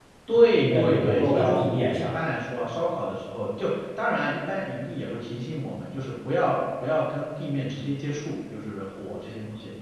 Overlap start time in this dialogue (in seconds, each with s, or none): 0.6 s